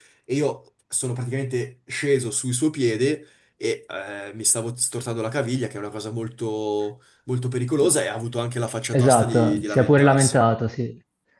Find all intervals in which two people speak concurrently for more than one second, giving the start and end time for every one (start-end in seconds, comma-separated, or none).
8.9-10.4